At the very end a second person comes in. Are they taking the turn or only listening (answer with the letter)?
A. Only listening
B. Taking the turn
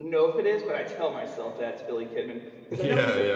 B